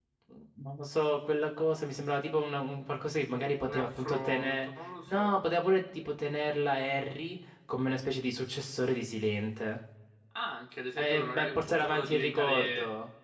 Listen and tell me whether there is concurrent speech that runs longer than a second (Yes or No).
Yes